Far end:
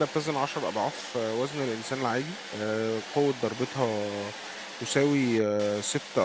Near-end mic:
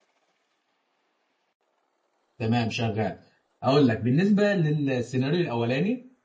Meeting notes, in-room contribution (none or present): present